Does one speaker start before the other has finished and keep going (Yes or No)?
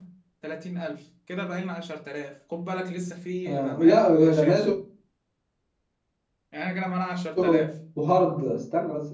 Yes